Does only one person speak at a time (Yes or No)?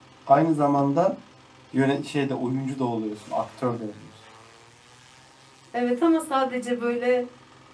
Yes